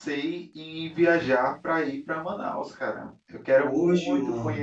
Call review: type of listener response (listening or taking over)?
listening